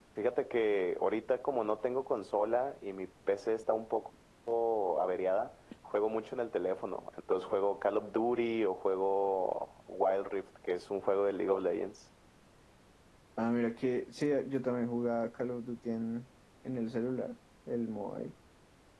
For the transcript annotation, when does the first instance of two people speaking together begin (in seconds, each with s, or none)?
none